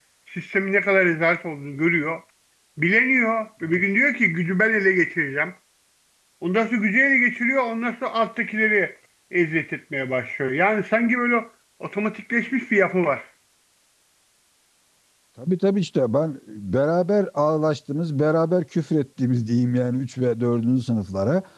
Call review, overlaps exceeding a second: none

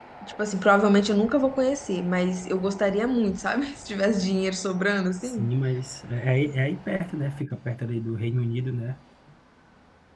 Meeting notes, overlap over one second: none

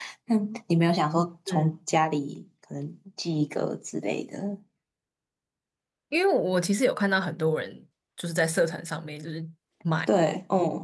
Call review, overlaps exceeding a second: none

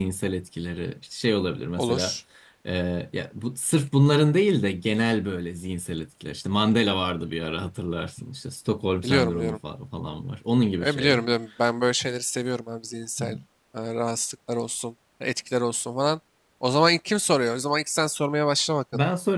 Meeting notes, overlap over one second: none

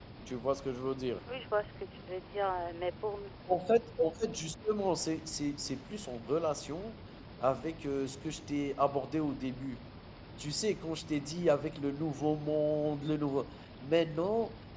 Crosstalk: none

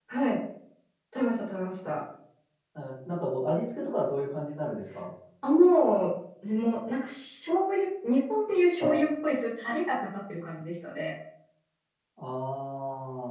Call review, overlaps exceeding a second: none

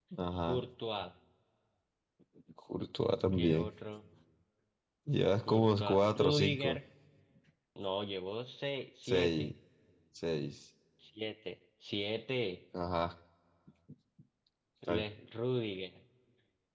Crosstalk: present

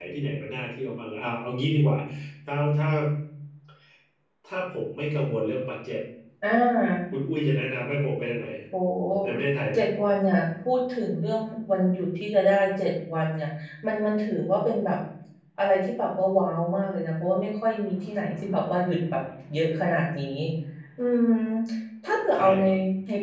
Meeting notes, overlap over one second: none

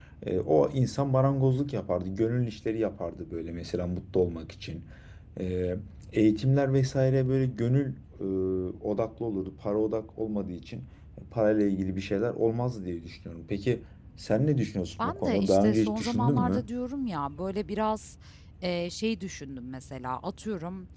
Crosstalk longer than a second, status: present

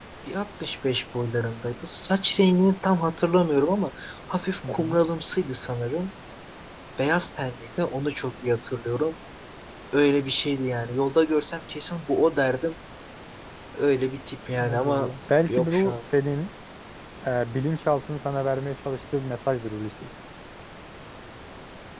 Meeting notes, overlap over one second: none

